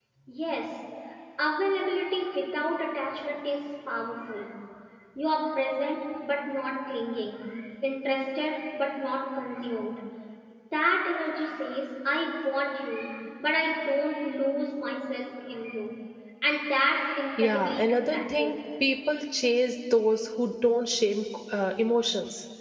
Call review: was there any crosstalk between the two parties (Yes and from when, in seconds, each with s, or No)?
Yes, from 17.4 s